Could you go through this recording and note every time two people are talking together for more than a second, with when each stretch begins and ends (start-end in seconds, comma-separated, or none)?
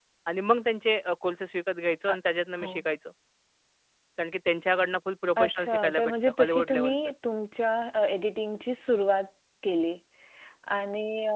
5.4-7.0